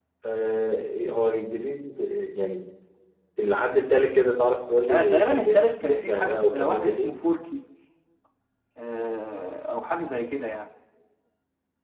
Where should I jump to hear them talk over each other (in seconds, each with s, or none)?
4.8 s